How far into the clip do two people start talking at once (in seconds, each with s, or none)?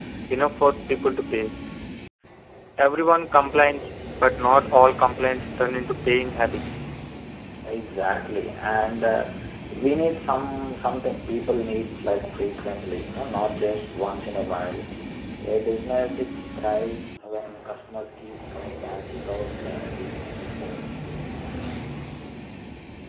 none